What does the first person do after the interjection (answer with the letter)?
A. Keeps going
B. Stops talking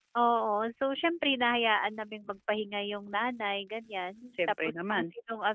A